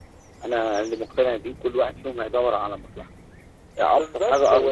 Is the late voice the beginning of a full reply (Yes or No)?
Yes